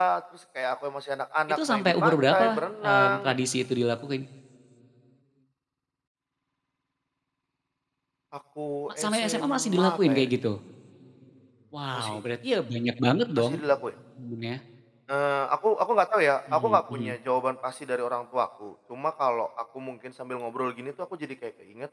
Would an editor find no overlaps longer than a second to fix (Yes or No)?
No